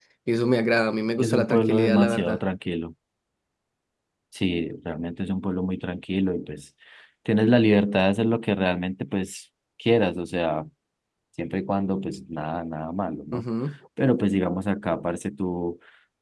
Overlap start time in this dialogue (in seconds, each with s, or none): 1.2 s